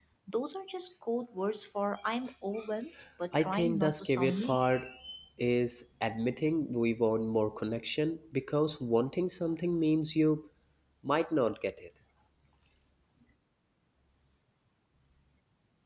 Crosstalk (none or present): present